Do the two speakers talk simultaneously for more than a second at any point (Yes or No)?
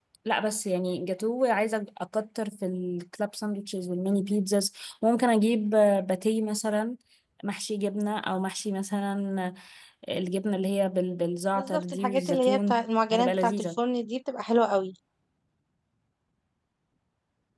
Yes